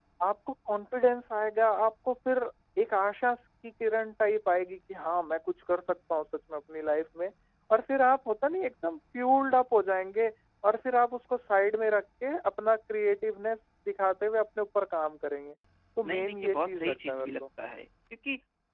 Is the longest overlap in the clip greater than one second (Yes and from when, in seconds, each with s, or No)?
Yes, from 16.0 s